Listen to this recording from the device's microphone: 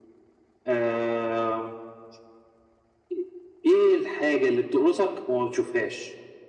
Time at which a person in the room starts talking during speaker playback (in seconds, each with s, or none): none